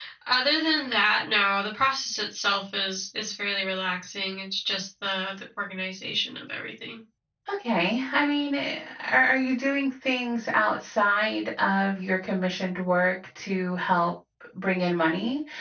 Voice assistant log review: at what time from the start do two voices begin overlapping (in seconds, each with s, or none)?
none